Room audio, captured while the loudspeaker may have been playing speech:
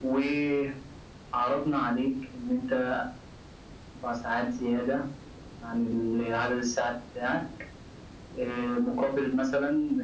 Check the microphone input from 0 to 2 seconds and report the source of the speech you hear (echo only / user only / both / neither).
echo only